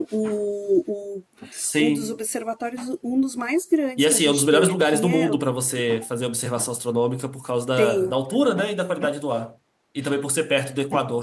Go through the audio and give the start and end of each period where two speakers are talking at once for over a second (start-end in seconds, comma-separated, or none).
4.0-5.3